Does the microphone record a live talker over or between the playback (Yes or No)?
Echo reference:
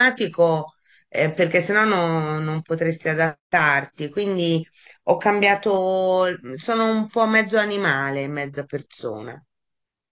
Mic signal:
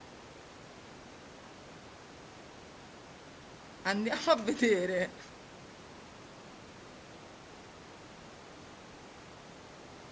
Yes